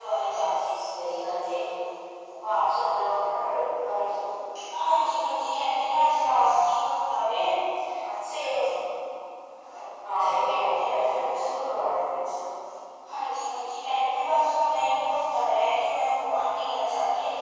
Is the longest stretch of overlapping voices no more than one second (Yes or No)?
No